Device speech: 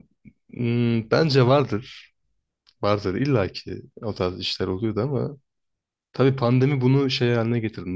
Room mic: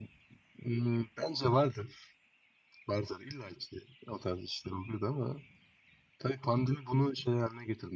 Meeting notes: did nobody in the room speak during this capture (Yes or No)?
Yes